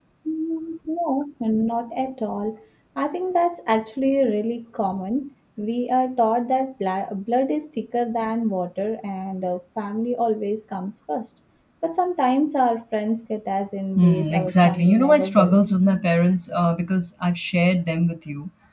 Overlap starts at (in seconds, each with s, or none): 13.9 s